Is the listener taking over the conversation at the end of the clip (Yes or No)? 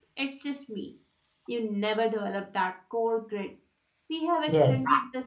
No